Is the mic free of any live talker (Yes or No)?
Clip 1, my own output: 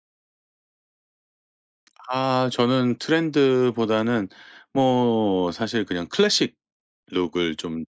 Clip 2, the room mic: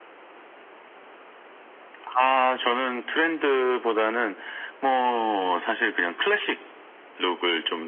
Yes